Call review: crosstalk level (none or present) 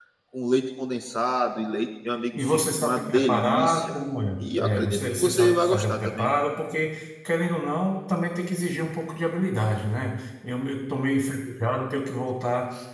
present